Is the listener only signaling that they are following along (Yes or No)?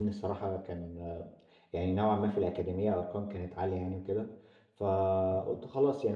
Yes